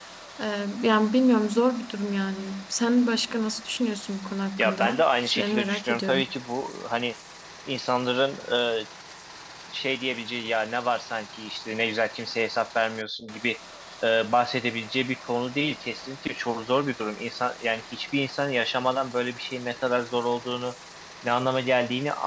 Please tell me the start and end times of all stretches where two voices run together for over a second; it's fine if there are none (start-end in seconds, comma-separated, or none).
4.6-6.2